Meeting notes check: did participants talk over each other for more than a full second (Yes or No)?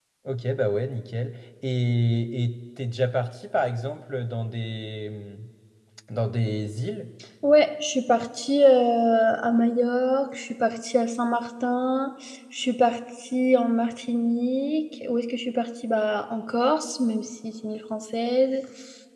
No